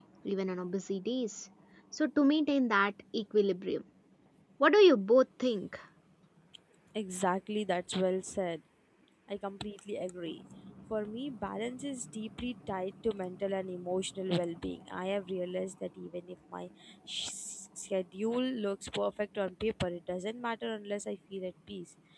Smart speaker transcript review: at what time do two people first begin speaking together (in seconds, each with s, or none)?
none